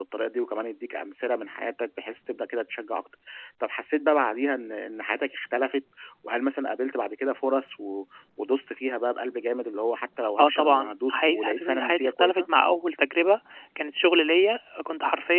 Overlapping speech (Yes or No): Yes